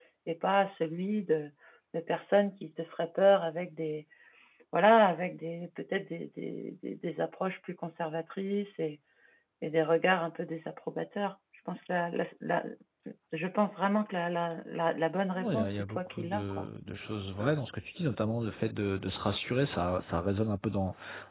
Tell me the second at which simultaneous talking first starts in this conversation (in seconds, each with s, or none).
15.4 s